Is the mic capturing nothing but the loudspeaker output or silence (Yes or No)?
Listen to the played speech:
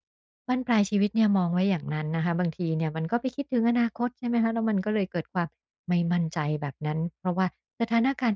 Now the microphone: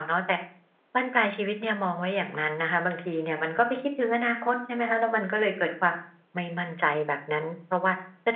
Yes